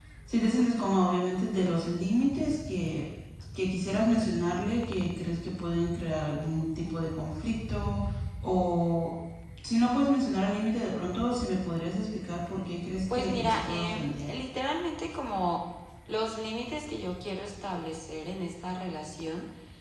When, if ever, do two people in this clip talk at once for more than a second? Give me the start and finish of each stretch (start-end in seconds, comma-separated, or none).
13.1-14.3